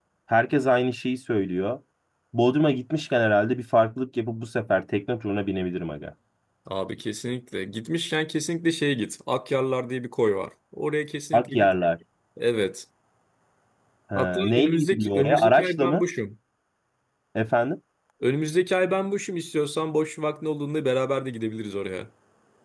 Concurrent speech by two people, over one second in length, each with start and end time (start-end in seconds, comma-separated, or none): 14.2-16.1